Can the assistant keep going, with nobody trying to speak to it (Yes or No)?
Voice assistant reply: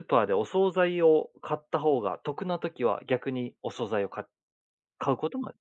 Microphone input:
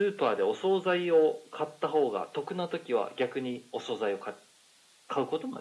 Yes